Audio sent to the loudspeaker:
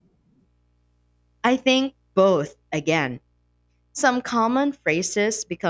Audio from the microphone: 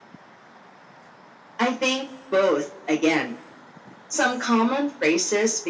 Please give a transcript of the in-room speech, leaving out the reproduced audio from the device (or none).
none